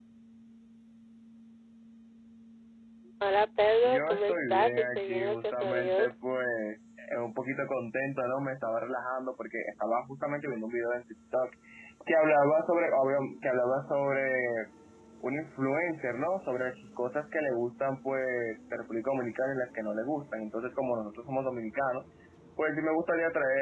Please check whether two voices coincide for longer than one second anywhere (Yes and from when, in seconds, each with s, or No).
Yes, from 3.8 s